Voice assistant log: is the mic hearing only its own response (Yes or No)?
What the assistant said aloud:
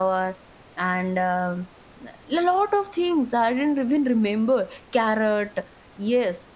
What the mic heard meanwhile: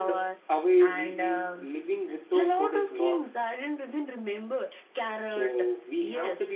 No